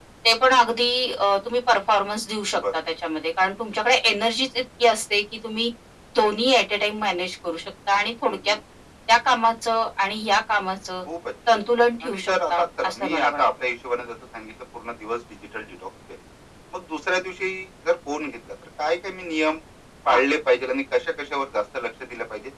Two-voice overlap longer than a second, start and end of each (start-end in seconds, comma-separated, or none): 12.0-13.4